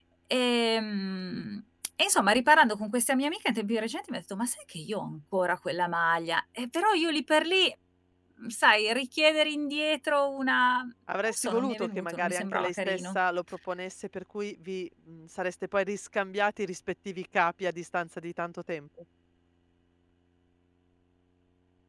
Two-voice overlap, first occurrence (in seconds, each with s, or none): 11.1 s